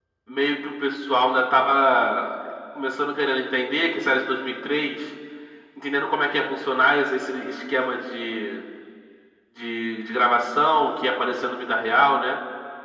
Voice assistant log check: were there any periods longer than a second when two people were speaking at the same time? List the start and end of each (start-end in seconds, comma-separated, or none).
none